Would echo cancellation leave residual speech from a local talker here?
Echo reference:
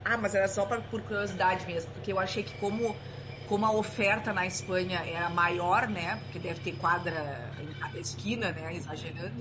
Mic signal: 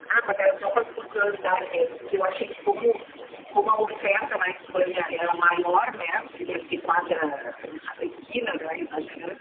No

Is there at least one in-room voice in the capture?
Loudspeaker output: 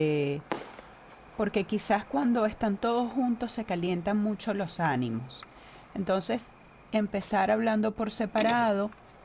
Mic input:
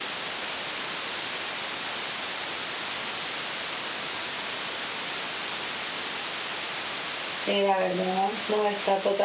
Yes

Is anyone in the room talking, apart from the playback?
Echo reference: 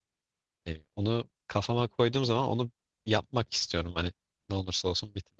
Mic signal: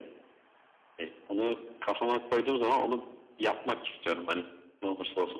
No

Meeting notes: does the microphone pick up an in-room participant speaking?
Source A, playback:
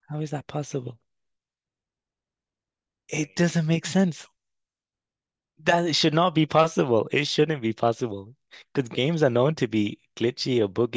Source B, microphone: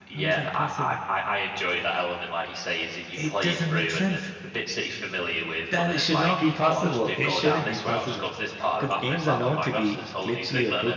Yes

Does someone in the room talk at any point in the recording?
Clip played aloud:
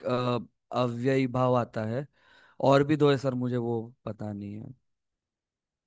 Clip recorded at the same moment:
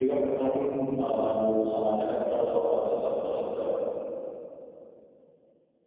Yes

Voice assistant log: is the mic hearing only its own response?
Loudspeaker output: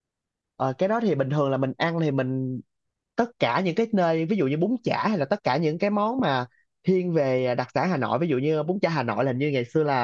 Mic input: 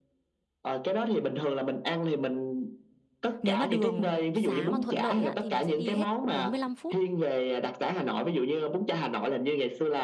No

